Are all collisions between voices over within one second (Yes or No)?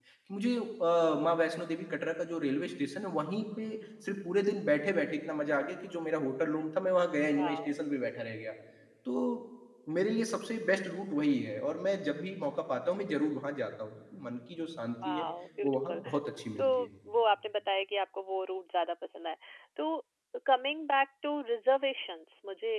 Yes